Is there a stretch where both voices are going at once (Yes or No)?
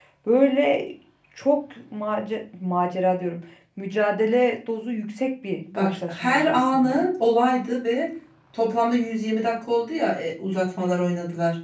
Yes